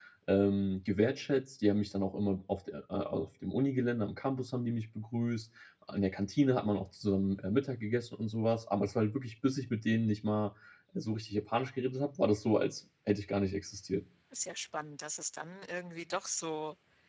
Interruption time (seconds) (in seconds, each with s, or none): none